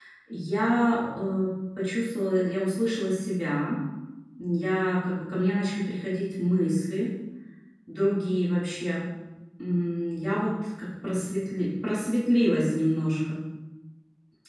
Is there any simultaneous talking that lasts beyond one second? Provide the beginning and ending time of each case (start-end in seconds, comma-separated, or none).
none